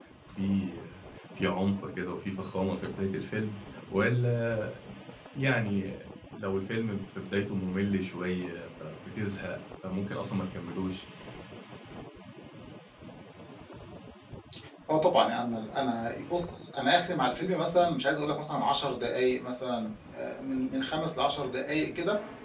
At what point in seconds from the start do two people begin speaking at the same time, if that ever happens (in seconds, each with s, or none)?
none